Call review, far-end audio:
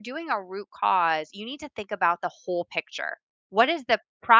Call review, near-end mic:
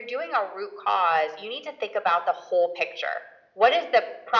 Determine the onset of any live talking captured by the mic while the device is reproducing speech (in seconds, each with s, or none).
none